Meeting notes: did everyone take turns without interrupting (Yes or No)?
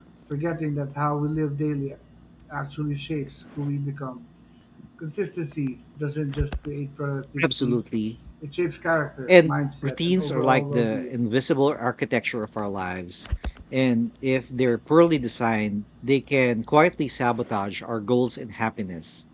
No